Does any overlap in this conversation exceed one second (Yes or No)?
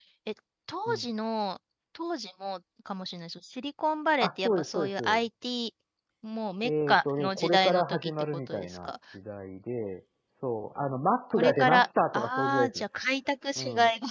Yes